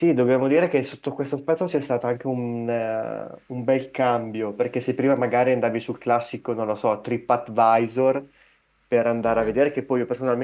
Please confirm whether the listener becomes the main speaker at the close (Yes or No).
No